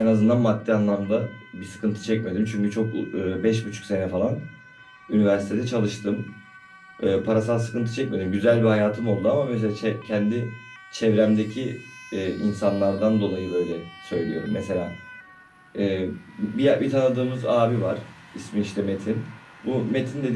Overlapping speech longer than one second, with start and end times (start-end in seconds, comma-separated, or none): none